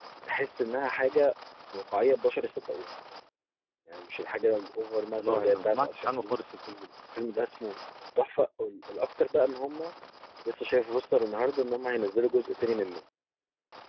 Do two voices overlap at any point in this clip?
Yes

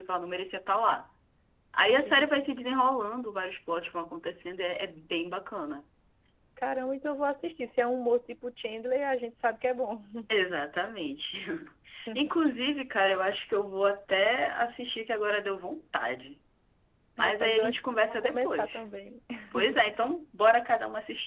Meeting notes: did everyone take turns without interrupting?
No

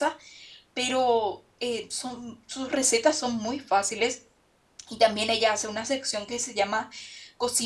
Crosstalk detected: No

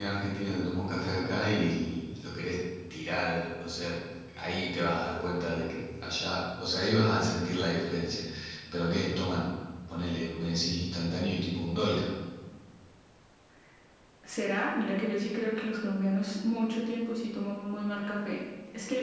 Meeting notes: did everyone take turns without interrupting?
Yes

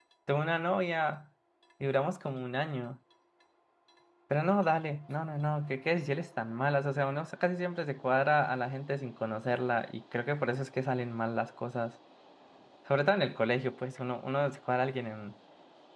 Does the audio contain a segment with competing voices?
No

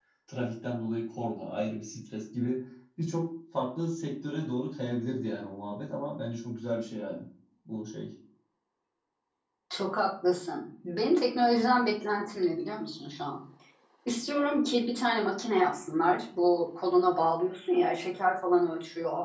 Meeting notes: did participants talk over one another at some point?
No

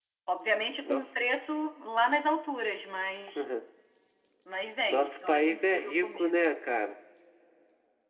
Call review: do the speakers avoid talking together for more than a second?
No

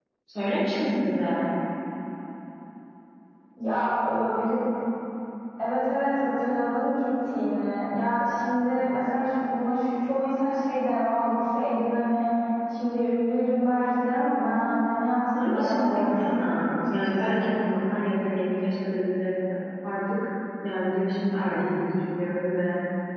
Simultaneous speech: Yes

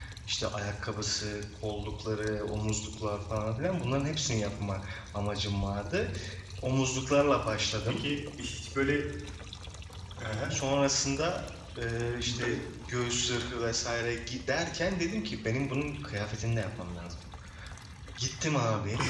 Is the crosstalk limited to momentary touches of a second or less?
Yes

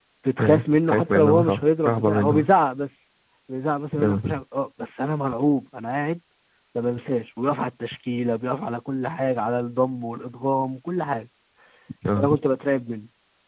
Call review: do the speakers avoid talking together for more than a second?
No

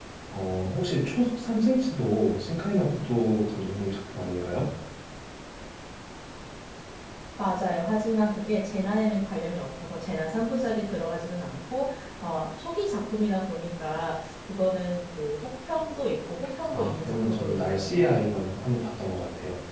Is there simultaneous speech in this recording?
Yes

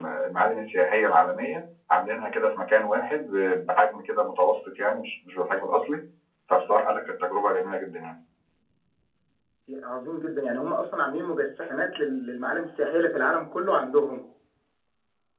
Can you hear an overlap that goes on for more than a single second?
No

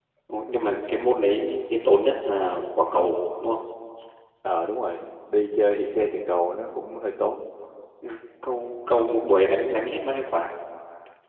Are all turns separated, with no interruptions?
Yes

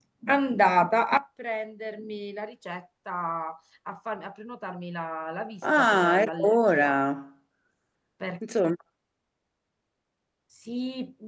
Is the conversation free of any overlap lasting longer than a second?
No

